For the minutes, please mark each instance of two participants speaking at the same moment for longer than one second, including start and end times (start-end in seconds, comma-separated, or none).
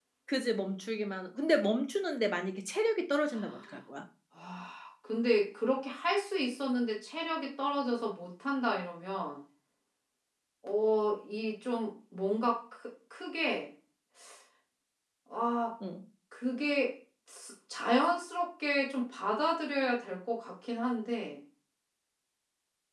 none